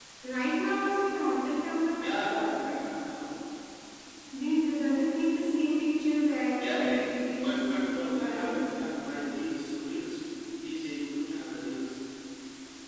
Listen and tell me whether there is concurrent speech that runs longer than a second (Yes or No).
Yes